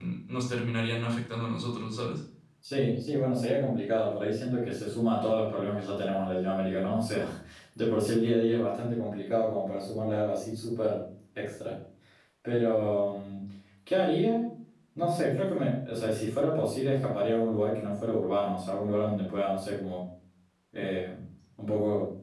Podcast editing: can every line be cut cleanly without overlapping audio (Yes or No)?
Yes